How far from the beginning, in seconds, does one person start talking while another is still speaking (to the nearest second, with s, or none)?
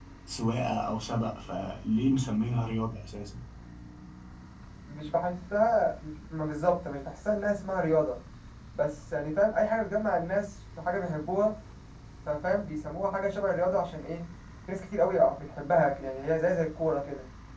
none